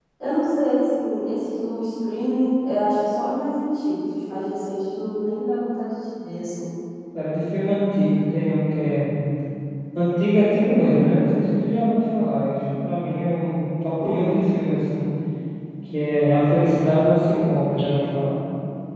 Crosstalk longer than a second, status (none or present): none